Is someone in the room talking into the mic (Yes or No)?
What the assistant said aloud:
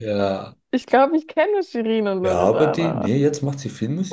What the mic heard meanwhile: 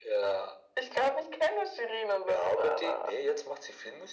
No